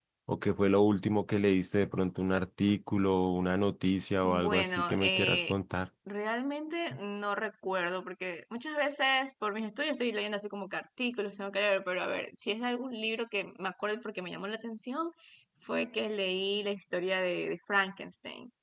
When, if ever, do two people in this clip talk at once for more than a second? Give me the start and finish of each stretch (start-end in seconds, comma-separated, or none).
4.2-5.5